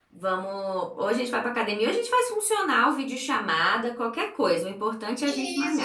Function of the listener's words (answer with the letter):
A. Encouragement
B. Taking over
B